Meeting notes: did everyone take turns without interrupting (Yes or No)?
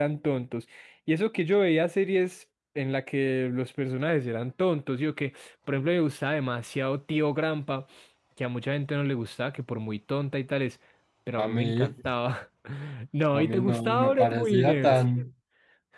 No